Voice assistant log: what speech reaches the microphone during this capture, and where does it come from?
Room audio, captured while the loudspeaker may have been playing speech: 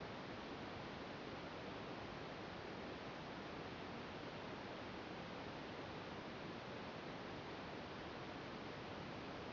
neither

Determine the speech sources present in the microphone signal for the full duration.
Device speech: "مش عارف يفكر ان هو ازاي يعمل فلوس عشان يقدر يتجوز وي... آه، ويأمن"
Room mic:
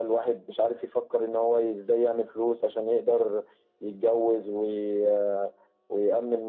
echo only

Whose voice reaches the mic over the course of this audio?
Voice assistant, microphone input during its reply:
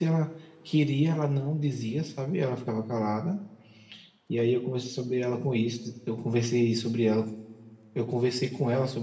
user only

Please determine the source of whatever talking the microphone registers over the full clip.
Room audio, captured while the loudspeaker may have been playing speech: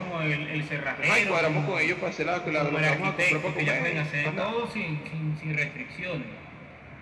echo only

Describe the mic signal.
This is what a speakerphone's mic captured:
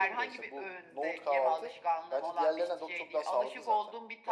echo only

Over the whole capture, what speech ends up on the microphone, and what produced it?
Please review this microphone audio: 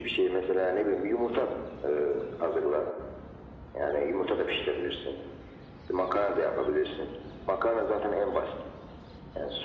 echo only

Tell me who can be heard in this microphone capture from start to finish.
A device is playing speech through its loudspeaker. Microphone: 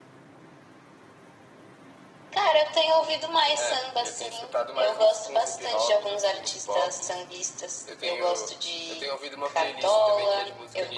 echo only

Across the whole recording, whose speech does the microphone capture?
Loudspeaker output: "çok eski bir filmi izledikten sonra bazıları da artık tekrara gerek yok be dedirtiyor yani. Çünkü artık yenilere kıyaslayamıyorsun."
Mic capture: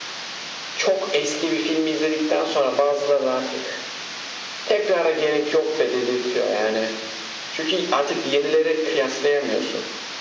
echo only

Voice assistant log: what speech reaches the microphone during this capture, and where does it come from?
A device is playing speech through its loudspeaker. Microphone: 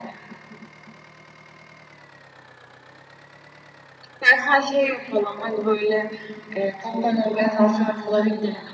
echo only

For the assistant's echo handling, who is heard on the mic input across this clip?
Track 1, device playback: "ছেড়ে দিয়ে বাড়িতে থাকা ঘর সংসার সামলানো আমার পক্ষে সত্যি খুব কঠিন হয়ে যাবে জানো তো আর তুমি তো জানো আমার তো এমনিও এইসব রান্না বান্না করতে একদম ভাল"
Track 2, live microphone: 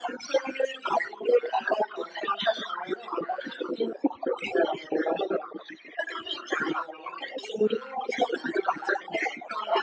echo only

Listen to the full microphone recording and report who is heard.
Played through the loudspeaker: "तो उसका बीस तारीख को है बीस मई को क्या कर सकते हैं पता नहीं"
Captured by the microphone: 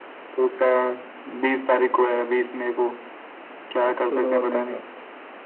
both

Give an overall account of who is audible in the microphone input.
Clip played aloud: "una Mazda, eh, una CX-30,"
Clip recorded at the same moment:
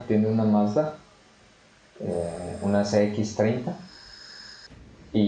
echo only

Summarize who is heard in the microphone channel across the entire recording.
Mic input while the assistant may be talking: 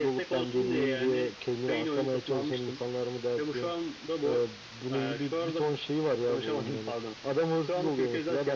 echo only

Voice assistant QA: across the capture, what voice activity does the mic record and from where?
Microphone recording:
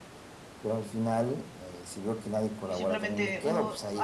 both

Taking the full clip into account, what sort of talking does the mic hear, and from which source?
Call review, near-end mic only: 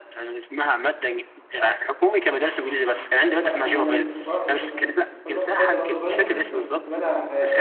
both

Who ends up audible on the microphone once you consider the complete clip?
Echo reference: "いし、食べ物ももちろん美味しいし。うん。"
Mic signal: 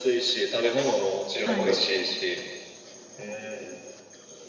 both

